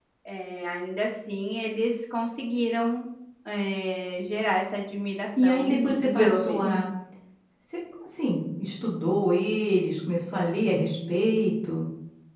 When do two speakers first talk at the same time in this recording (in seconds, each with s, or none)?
5.4 s